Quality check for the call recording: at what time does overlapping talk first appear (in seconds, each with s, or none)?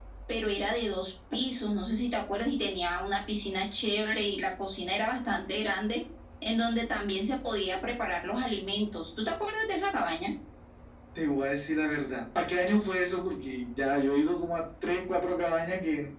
none